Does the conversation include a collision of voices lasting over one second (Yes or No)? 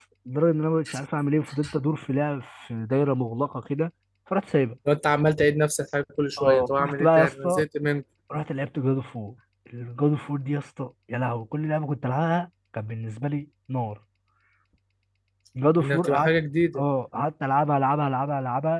Yes